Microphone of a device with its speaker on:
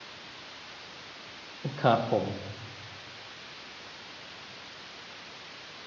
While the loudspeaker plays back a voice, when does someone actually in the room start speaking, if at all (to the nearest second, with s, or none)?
2 s